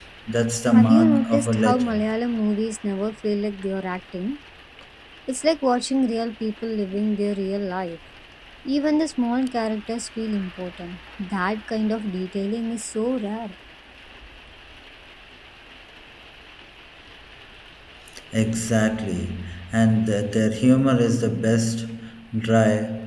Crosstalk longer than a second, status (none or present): present